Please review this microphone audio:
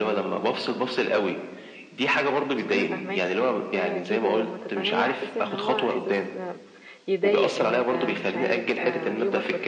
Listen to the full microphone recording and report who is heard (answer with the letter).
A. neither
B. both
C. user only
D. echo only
B